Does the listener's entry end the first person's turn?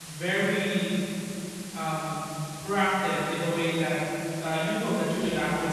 Yes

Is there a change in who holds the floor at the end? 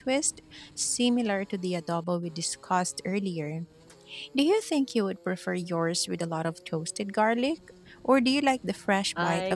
Yes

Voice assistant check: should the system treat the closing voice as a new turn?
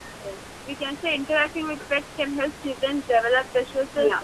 No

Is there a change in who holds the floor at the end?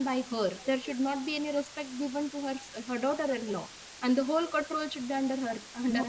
Yes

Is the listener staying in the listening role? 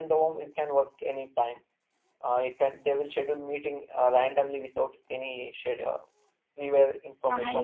No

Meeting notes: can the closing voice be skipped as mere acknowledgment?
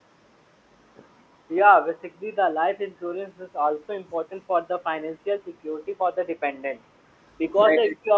Yes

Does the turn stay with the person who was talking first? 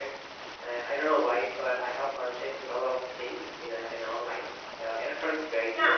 No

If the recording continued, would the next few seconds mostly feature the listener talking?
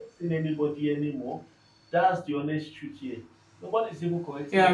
Yes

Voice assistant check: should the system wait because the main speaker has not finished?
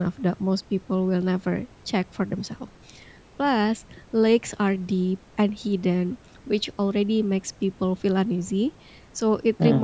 Yes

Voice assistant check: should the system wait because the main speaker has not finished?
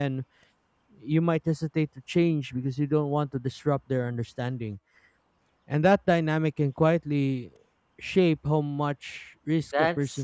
No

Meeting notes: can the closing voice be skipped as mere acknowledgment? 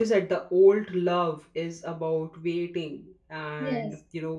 Yes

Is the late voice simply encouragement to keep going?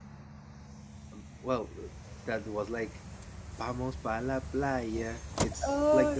No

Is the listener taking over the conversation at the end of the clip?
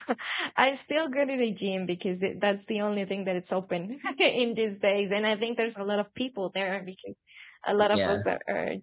No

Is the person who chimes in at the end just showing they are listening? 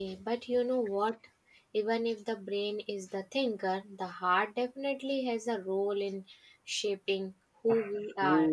No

